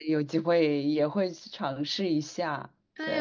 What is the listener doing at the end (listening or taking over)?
taking over